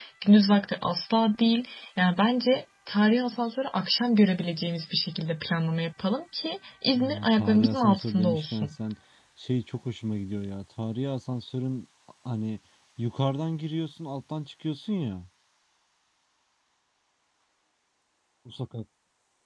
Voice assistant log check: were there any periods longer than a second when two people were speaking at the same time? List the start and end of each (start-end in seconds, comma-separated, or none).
7.0-8.7